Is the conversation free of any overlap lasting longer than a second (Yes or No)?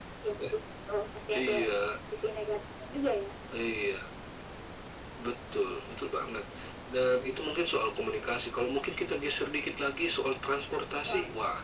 Yes